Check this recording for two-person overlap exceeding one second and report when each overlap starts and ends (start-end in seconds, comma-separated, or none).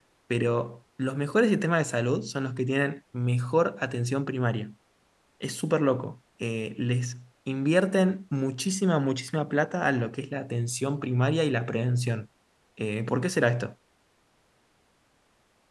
none